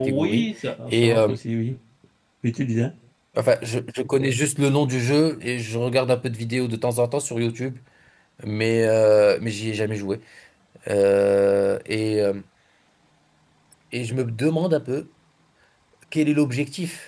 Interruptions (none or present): present